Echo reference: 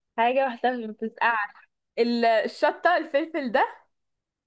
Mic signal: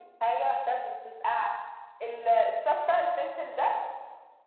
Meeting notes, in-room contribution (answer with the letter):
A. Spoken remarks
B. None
B